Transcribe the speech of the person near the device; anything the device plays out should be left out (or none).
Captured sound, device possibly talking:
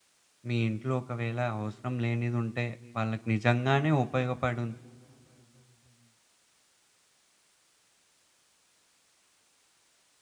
మీ ఇంట్లో ఒకవేళ అవసరం లేనిదుంటే వాళ్ళకి నిజంగానే ఉపయోగపడుం